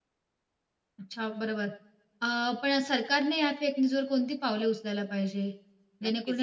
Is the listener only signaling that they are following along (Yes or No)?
No